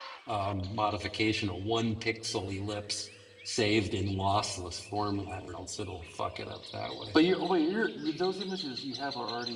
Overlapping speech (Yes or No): No